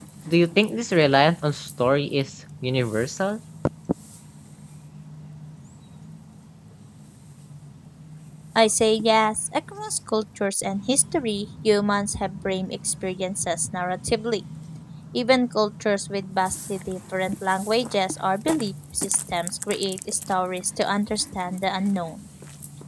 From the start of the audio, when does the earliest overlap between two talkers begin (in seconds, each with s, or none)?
none